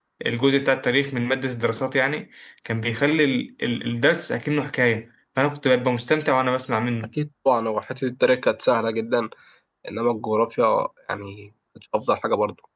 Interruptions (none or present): none